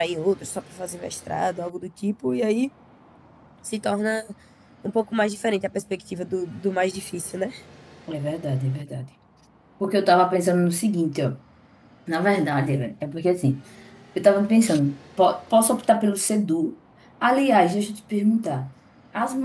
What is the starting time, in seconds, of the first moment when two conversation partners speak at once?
none

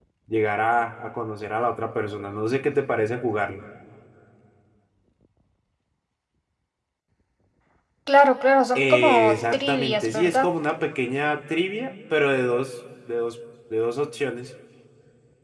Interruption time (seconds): 8.8 s

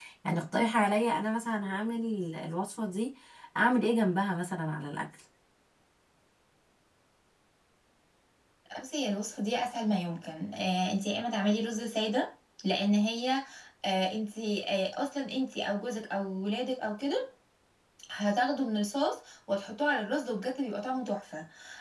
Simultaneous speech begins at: none

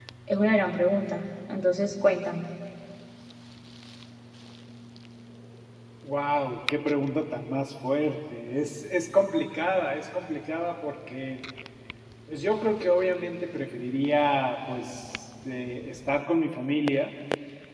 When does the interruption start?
none

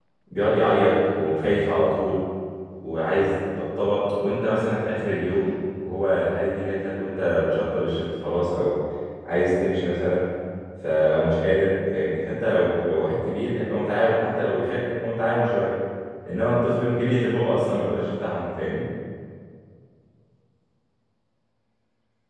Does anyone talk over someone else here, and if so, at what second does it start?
none

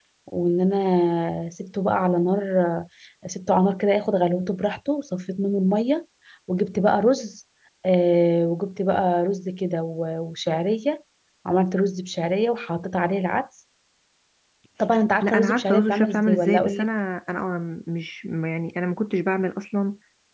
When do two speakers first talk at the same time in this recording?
15.2 s

